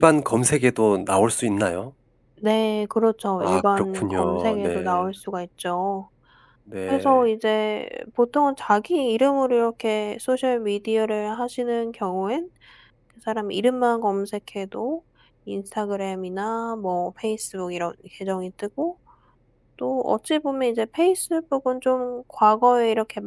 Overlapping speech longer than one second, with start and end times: 3.4-5.1

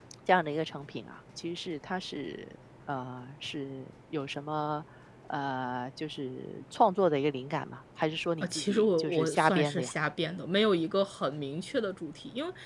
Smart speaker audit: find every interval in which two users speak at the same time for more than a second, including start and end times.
8.4-9.9

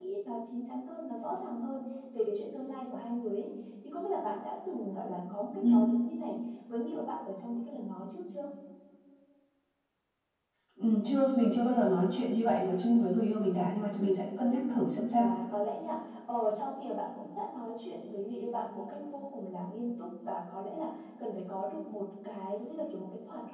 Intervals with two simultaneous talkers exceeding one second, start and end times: none

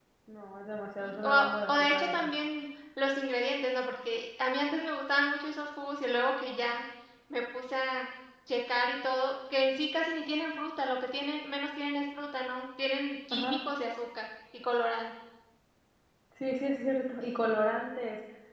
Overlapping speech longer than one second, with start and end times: 1.0-2.3

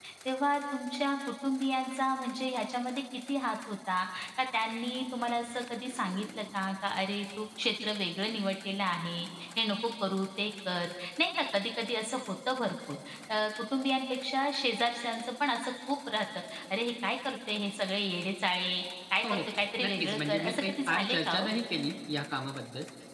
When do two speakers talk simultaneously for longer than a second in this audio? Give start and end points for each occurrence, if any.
19.2-21.5

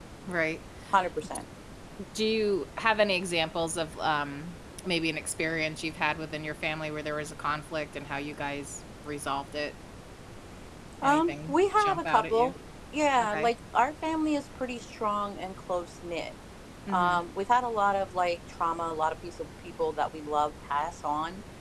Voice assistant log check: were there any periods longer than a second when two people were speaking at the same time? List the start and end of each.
11.0-12.5

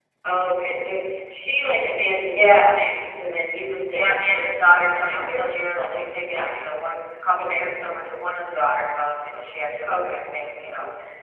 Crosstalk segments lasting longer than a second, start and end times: 3.9-6.5

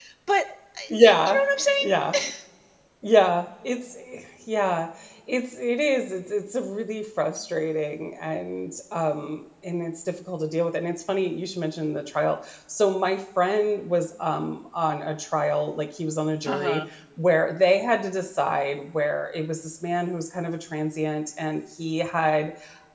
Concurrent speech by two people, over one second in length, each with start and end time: none

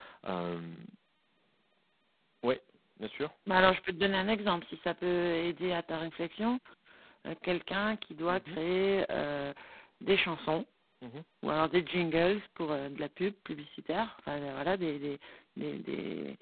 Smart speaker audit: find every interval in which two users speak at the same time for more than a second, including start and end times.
none

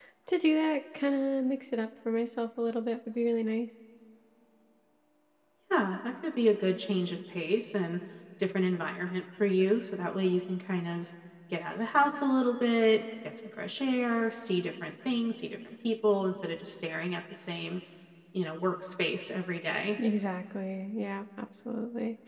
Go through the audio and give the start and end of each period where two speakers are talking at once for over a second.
none

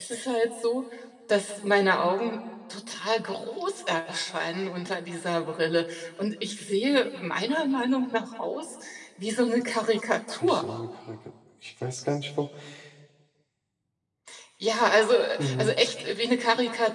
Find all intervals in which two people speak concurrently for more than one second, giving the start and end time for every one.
none

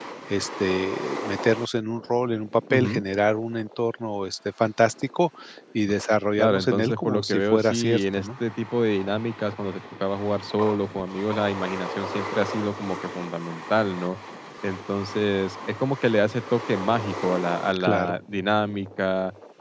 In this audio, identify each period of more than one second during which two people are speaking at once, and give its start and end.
6.4-8.3

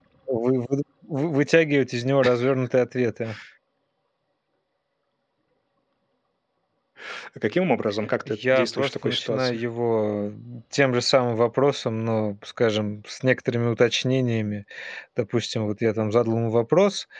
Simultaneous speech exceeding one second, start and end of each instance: 8.3-9.6

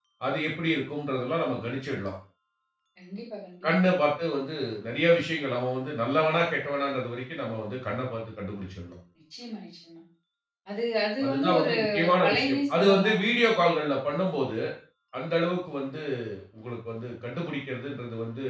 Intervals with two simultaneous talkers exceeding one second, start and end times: 11.2-13.2

